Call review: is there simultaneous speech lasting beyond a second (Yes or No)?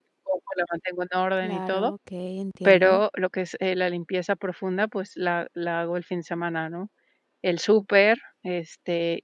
No